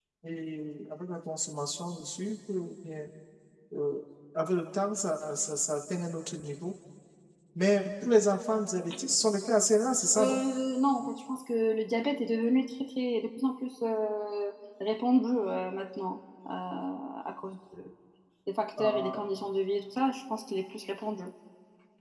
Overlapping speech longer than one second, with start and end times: none

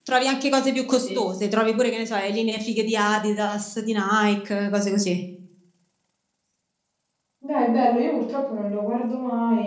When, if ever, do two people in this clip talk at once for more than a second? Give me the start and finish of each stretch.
none

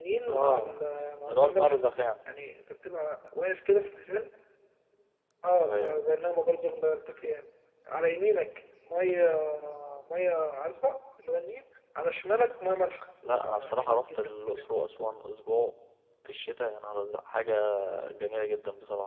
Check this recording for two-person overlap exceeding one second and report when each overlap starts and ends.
13.4-14.6

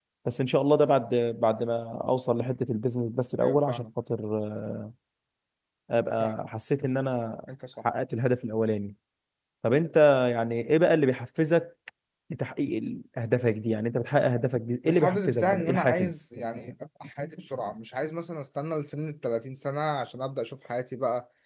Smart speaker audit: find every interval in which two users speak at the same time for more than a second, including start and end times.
14.8-16.2

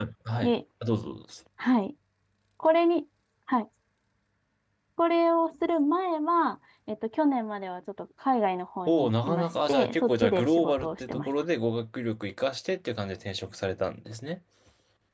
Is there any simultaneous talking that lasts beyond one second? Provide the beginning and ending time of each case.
8.9-11.3

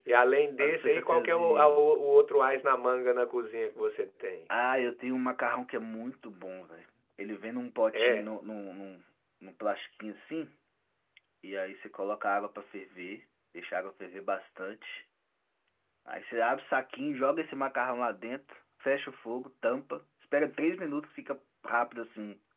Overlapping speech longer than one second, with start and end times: 0.6-1.9

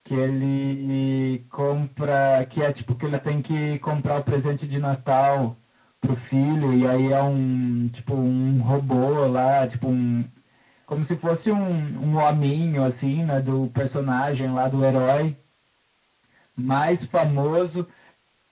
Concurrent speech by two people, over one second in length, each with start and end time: none

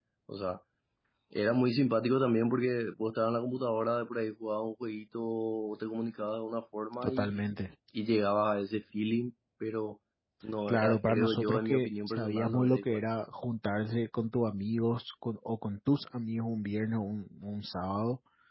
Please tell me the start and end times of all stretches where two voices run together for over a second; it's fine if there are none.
10.7-13.0

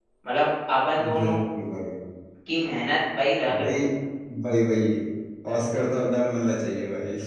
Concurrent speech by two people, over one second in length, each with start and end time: none

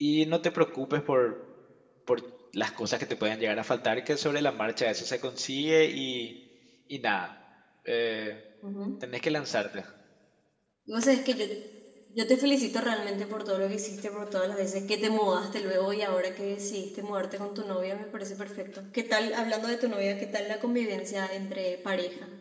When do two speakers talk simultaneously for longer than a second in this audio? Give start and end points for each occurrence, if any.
none

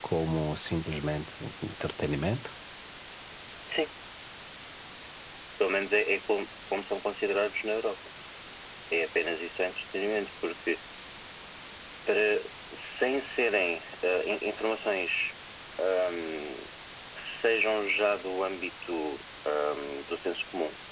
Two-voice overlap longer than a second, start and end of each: none

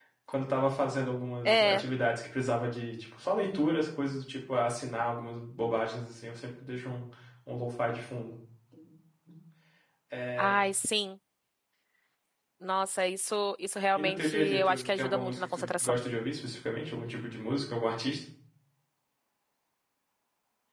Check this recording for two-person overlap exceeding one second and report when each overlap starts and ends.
14.0-16.0

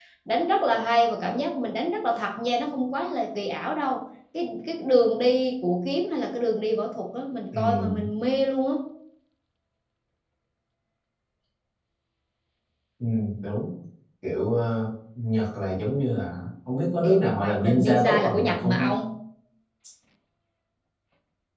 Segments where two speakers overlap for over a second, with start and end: 17.0-18.9

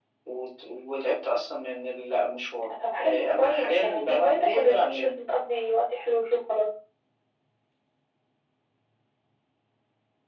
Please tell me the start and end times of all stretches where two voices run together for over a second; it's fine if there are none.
3.0-5.2

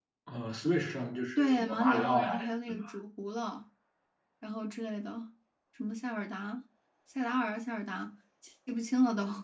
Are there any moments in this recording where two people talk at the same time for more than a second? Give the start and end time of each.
1.4-2.8

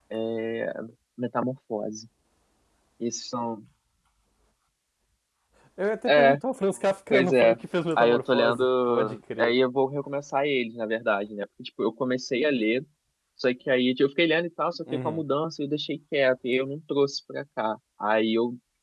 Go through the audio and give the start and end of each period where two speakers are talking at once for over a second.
8.0-9.5

